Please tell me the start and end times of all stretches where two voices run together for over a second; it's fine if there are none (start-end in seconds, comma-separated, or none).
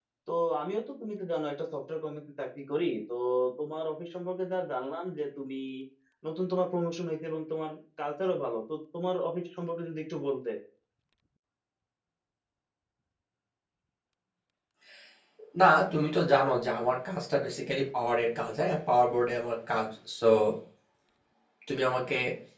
none